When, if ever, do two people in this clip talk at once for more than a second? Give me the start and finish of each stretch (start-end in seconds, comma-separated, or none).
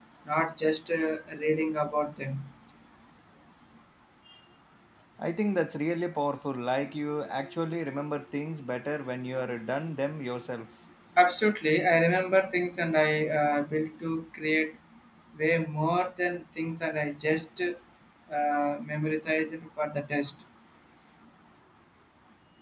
none